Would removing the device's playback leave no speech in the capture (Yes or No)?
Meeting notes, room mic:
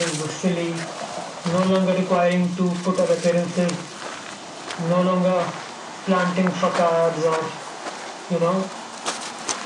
Yes